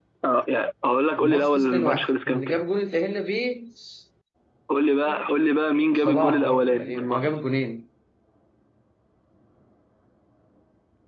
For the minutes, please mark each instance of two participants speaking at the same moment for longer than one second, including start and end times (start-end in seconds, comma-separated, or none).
1.2-2.6, 6.0-7.4